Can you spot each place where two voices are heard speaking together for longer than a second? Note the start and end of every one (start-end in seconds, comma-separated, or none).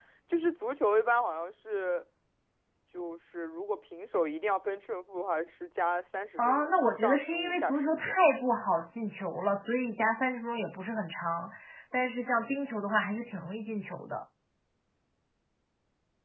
6.4-8.2